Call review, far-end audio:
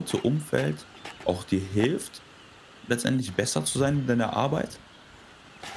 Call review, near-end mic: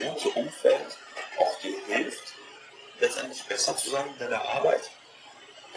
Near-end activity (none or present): none